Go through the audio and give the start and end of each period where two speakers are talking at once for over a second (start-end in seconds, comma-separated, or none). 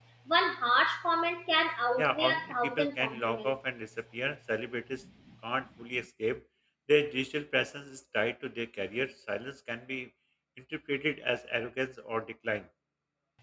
2.0-3.6